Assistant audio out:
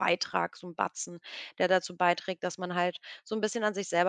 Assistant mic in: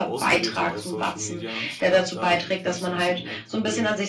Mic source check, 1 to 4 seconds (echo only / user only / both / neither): both